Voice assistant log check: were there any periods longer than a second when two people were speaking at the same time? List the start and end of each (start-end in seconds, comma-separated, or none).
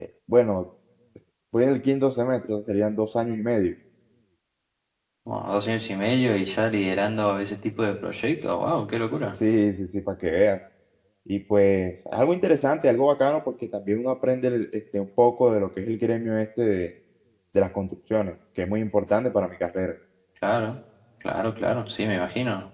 none